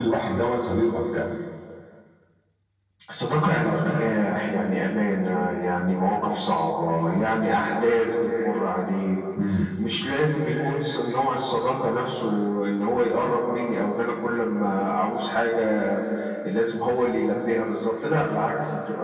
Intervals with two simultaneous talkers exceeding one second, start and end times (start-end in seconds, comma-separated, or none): none